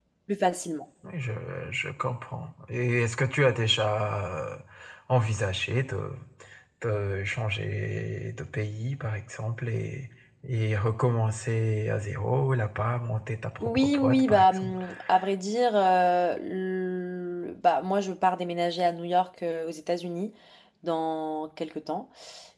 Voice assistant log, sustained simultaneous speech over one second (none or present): present